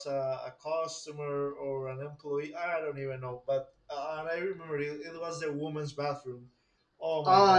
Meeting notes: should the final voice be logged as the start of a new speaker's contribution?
Yes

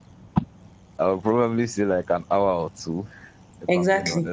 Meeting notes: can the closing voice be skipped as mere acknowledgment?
No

